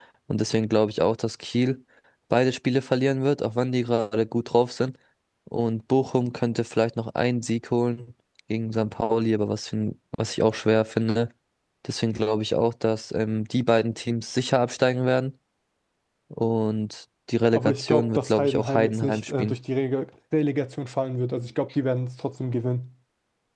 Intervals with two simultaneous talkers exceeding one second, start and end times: 17.5-19.6

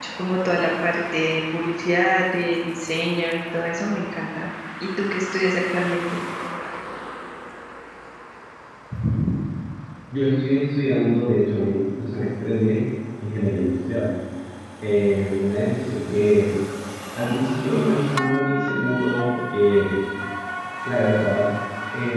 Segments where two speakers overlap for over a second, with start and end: none

